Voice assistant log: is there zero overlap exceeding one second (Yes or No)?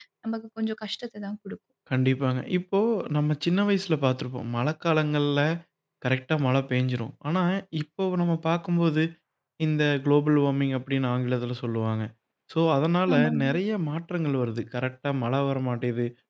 Yes